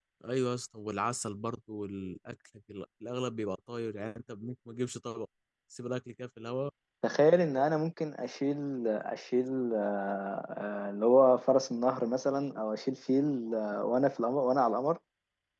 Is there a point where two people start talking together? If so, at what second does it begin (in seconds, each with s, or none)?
none